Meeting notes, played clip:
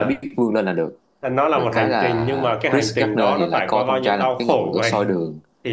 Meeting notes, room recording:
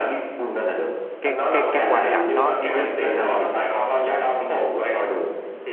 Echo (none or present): present